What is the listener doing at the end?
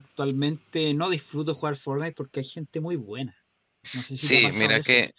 taking over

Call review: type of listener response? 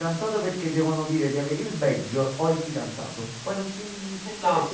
taking over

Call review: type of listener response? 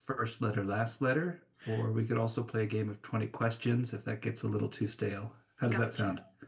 taking over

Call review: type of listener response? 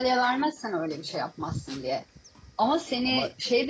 listening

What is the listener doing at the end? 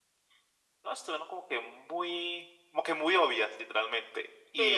listening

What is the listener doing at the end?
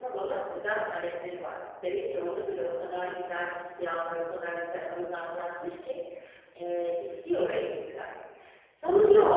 listening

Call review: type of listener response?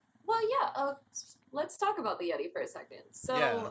taking over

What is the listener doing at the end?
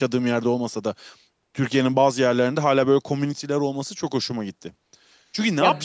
listening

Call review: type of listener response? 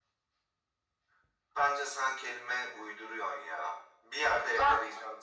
listening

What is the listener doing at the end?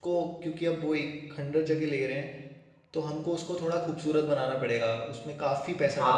taking over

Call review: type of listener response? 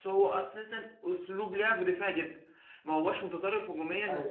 listening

